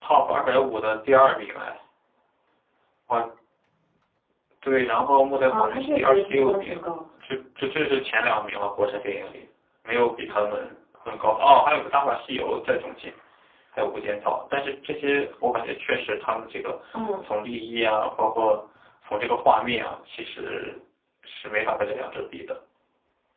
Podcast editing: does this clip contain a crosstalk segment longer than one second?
Yes, from 5.5 s

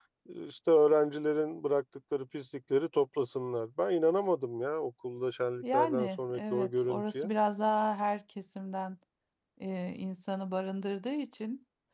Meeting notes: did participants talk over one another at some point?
Yes, from 5.6 s

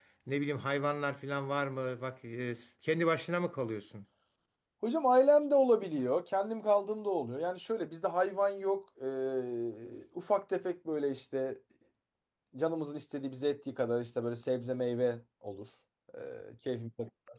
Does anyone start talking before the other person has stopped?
No

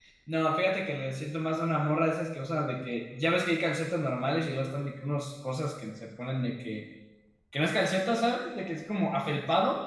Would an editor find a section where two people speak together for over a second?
No

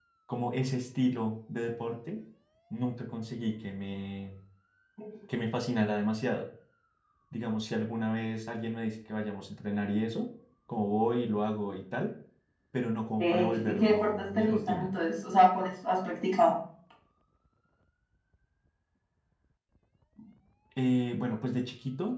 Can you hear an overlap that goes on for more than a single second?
Yes, from 13.2 s

